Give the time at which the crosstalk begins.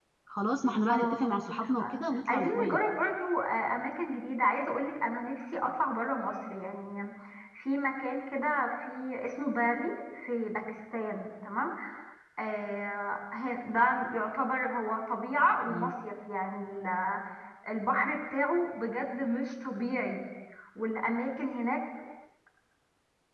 0.9 s

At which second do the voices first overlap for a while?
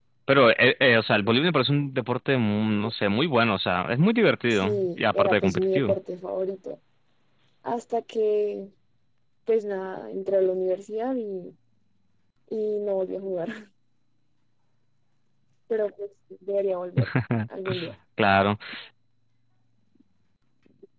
4.5 s

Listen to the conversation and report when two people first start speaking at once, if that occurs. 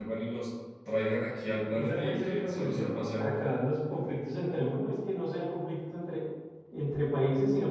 1.7 s

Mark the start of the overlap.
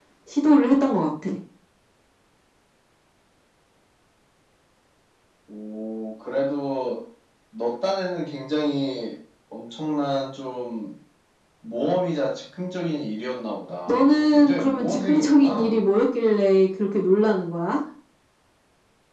13.9 s

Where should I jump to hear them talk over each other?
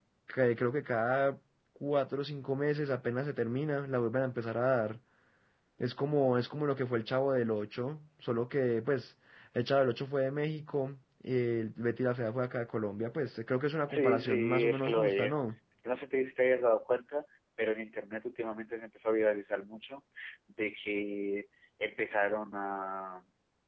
13.9 s

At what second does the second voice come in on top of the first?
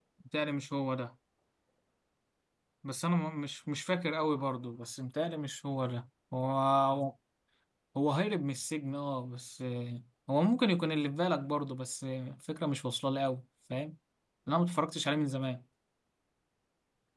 none

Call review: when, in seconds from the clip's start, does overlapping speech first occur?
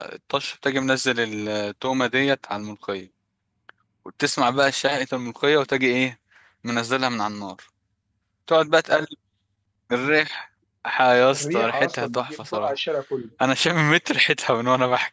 11.3 s

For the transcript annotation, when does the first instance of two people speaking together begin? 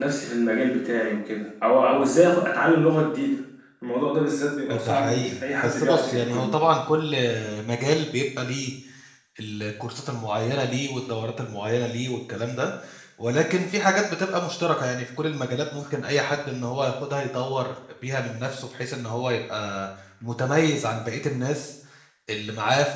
4.7 s

